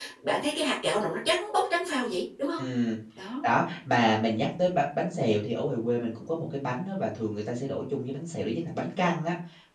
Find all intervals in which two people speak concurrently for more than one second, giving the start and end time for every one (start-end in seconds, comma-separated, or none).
none